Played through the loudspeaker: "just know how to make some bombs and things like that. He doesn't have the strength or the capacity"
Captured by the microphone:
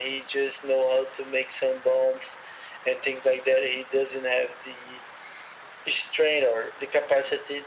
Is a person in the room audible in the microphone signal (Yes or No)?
No